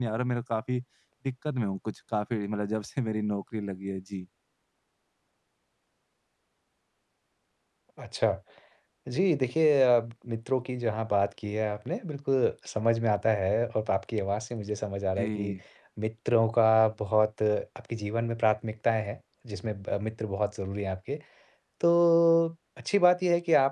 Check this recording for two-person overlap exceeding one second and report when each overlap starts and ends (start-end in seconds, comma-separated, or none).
none